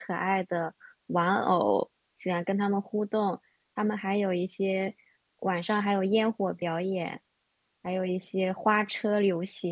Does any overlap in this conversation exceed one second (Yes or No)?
No